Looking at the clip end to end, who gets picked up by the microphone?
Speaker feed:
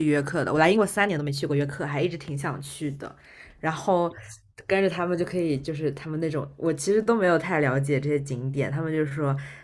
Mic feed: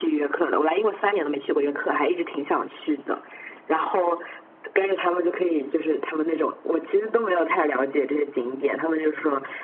echo only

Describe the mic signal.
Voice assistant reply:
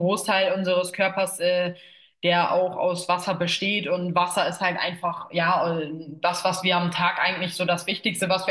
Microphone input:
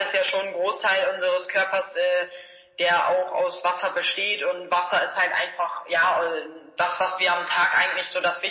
echo only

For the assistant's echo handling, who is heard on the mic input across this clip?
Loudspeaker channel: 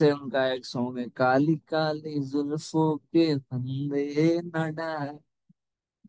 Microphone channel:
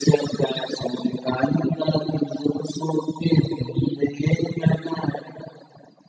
echo only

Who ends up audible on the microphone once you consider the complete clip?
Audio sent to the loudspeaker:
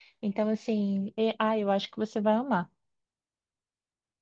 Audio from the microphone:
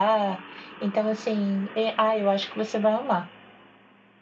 echo only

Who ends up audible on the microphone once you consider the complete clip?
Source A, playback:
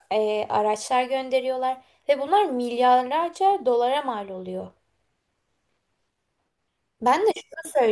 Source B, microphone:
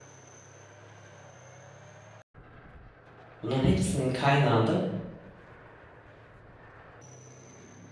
user only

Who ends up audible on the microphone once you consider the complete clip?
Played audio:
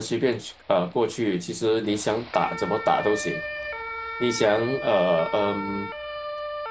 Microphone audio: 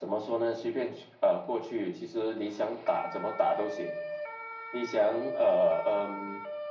echo only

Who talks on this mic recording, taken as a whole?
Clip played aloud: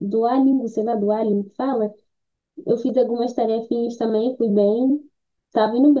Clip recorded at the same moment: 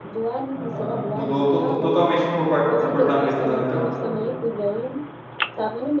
both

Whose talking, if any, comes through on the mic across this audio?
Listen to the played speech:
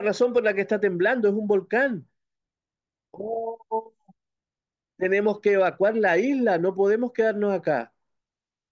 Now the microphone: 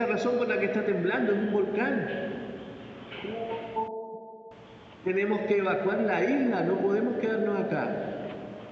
echo only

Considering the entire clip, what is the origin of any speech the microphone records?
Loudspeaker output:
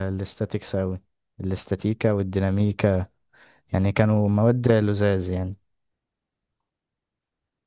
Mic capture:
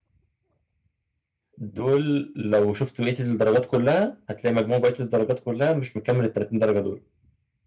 user only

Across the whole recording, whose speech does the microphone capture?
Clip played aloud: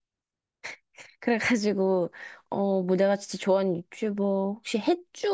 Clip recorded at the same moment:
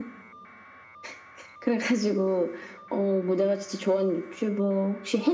echo only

